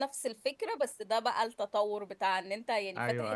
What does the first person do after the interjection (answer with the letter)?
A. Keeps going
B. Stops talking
A